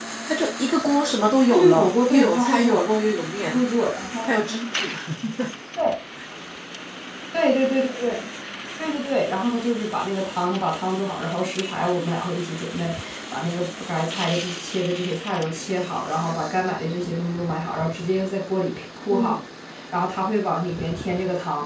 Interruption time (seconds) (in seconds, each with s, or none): 1.5 s